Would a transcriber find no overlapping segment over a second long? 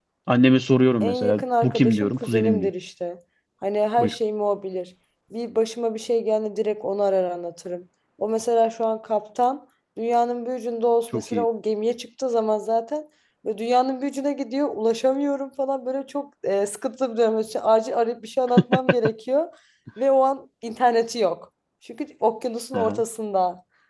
No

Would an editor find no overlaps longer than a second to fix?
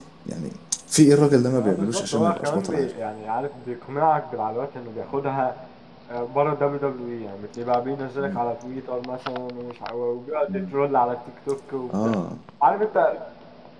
No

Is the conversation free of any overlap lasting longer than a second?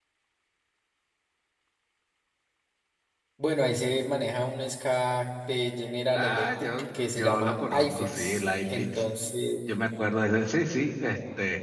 No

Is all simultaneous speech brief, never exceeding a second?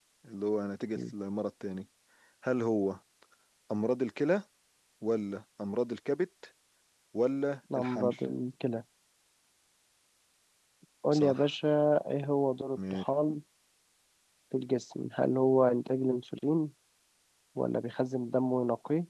Yes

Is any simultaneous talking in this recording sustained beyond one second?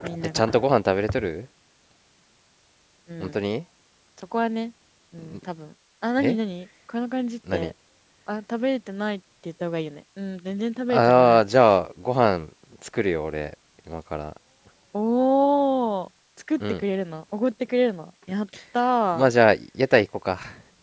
No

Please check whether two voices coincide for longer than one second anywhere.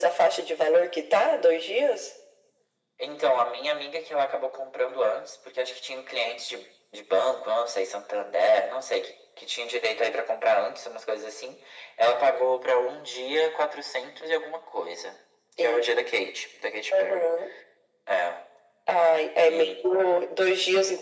No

